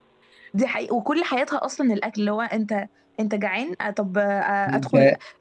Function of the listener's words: listening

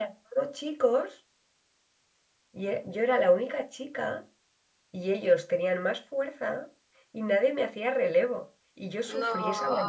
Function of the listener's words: listening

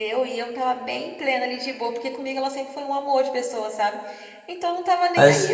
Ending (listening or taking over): listening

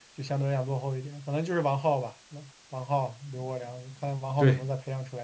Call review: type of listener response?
taking over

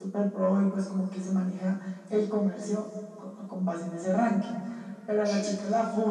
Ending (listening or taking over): listening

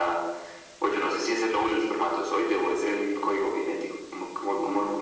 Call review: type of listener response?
taking over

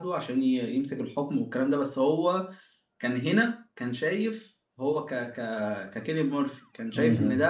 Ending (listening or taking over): listening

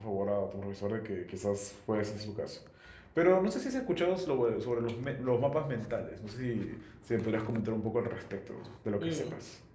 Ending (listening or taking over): taking over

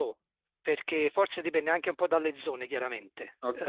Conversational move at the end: listening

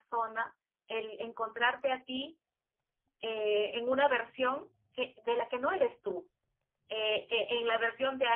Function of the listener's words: listening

